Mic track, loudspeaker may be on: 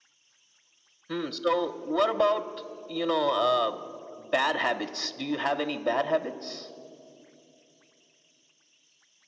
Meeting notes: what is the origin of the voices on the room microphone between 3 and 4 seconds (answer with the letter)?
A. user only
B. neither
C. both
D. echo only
D